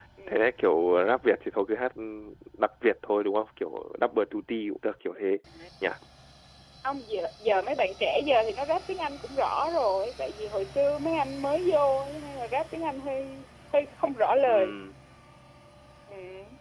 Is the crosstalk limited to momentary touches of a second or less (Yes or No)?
Yes